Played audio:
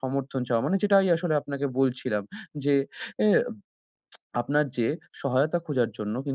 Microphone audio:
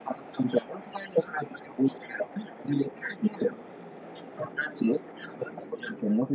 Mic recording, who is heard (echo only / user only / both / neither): echo only